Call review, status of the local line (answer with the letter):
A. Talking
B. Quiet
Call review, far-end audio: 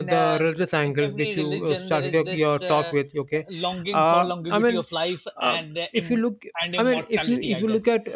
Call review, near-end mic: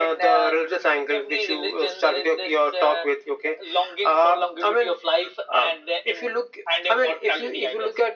B